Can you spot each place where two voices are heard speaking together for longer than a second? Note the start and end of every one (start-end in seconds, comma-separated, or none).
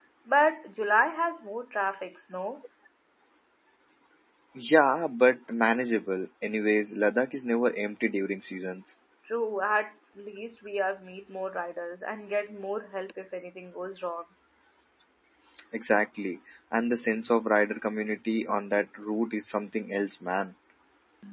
none